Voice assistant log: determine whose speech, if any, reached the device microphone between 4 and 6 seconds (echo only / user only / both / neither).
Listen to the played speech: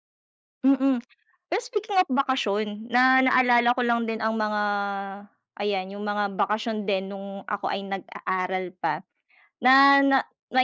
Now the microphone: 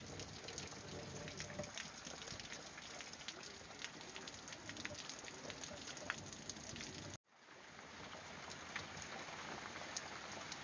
neither